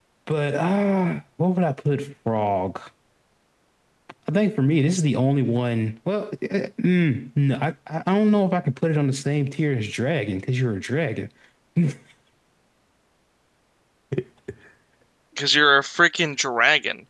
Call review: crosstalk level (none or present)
none